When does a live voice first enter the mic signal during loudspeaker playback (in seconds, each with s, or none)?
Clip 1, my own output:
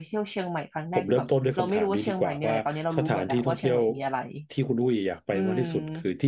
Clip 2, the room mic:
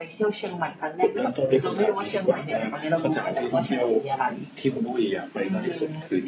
none